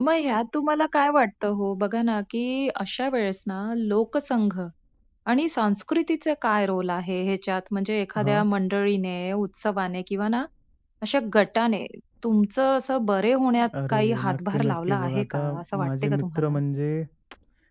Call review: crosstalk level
present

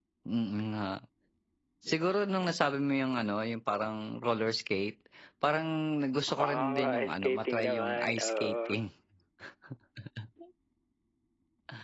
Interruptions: present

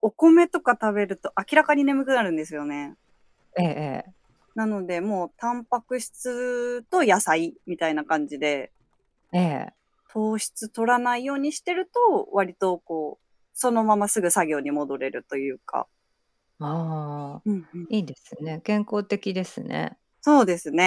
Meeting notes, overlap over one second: none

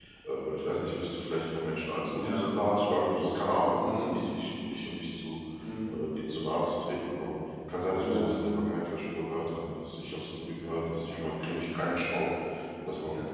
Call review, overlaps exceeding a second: none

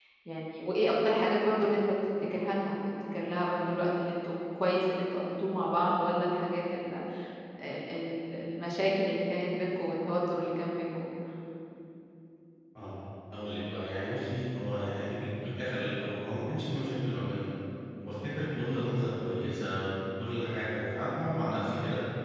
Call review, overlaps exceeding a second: none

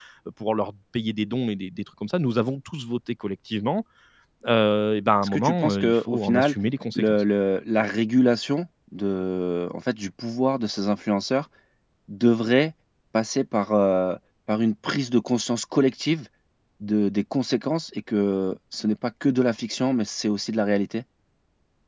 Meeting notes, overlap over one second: present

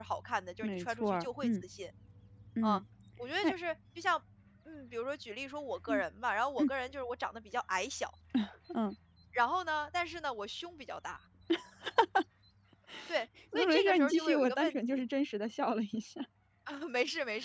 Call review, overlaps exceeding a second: present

